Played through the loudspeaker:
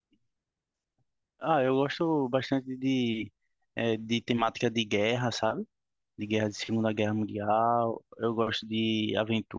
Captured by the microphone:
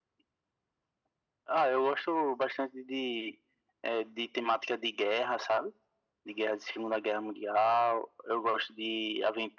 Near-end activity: none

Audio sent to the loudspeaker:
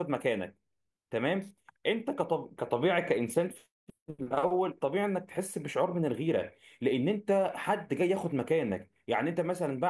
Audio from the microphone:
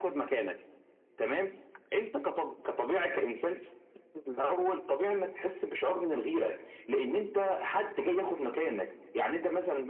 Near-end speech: none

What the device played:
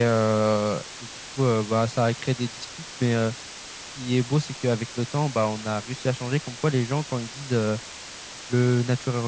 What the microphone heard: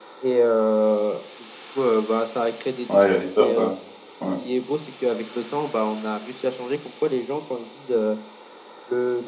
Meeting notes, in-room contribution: present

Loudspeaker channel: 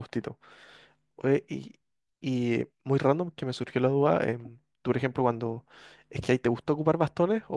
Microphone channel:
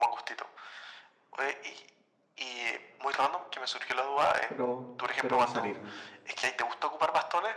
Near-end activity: present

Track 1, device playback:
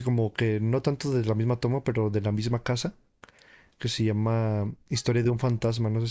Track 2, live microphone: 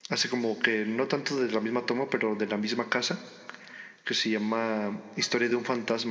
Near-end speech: none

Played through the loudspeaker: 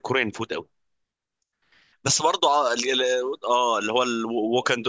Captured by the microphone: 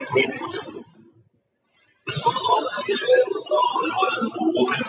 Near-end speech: none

